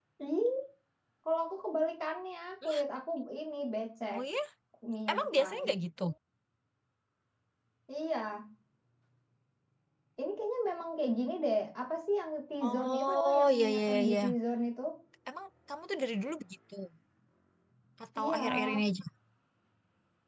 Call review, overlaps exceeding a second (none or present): present